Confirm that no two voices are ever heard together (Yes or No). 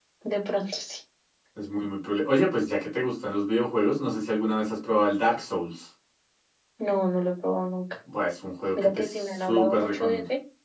No